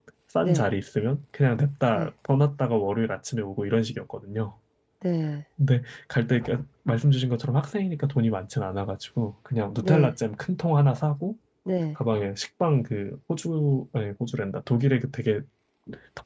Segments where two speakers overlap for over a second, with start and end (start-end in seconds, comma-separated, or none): none